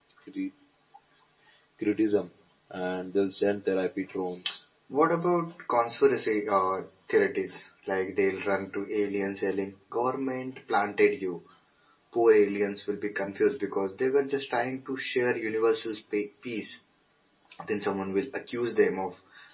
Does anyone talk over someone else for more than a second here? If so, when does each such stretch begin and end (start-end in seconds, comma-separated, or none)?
none